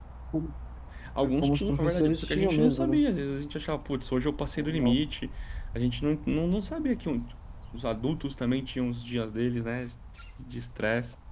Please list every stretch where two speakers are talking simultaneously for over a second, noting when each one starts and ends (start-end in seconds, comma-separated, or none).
1.2-3.0